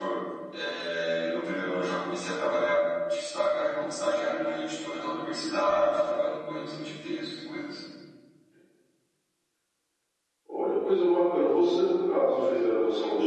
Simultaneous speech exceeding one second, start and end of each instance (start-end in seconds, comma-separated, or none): none